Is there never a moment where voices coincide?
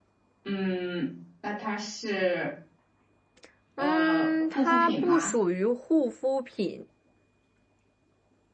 No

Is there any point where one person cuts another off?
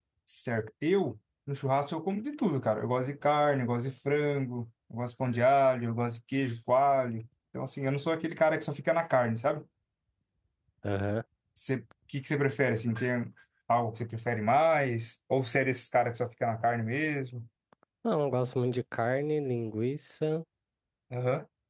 No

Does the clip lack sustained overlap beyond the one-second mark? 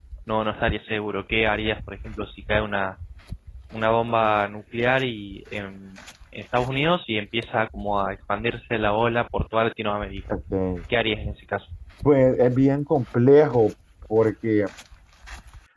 Yes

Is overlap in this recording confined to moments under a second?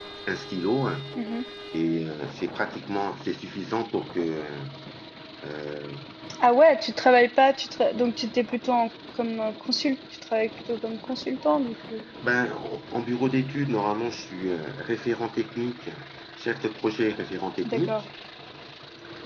Yes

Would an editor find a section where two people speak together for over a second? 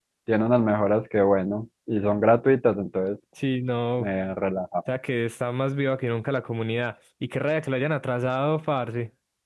No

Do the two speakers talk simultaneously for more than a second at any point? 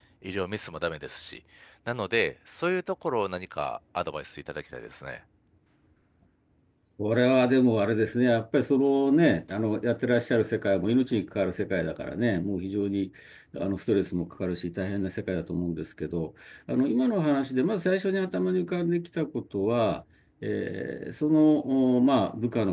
No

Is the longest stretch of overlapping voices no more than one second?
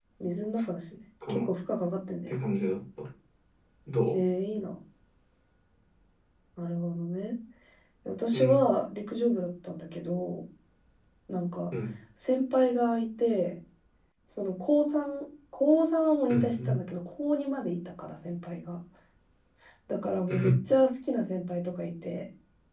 Yes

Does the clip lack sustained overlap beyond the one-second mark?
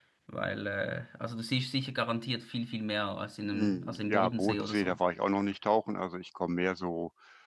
No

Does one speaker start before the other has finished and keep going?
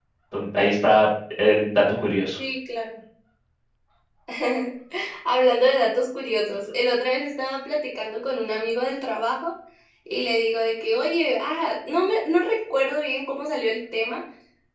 No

